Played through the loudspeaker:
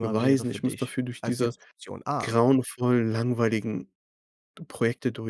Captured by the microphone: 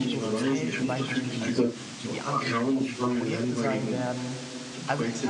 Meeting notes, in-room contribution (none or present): present